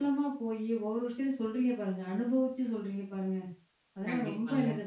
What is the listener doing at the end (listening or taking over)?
listening